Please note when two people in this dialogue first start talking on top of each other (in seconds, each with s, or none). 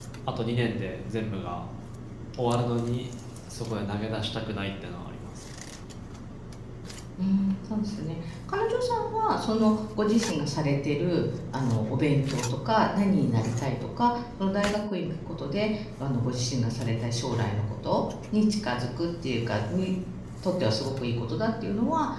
none